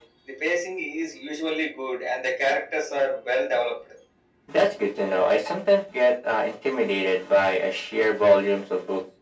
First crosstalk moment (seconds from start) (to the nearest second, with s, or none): none